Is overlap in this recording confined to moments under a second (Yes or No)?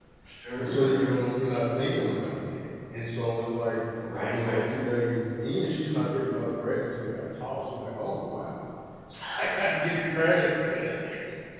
Yes